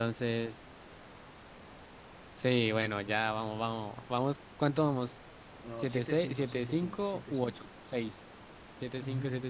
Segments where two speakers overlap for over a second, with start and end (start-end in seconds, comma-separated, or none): 5.8-7.6